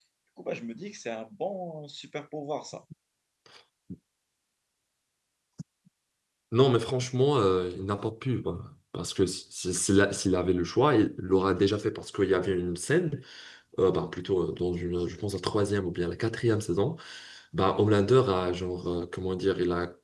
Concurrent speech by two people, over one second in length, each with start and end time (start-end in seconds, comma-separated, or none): none